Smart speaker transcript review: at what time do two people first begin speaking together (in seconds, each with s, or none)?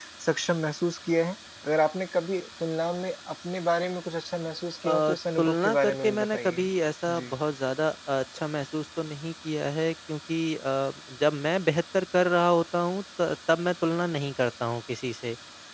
4.8 s